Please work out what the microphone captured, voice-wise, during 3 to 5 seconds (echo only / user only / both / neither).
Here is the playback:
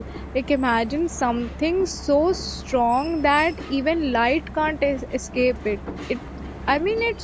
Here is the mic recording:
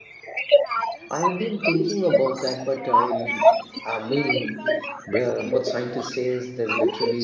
both